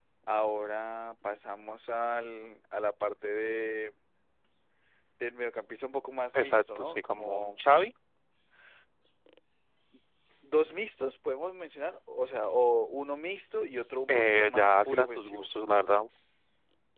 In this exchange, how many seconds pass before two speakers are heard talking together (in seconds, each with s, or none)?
6.3 s